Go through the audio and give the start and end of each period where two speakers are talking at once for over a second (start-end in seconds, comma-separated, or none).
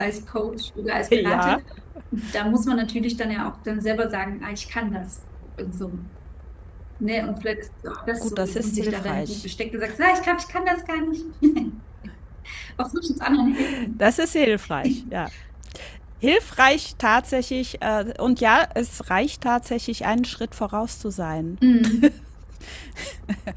8.2-9.4